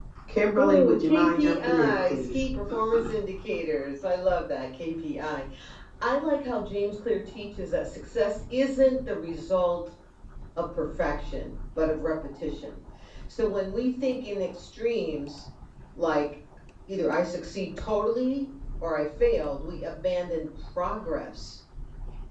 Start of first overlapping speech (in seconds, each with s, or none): 0.6 s